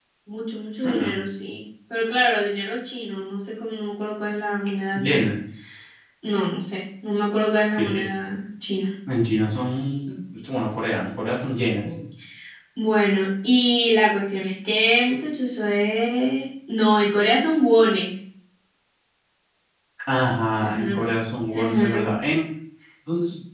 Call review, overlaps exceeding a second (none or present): none